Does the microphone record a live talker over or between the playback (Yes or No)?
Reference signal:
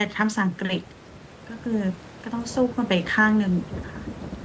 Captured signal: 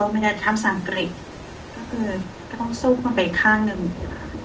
No